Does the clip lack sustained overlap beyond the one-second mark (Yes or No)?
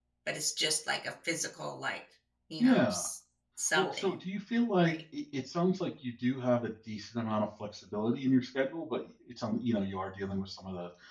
Yes